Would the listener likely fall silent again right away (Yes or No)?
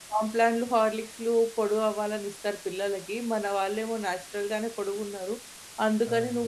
Yes